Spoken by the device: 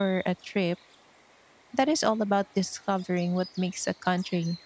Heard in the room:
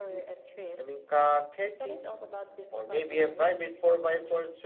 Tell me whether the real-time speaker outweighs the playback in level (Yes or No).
Yes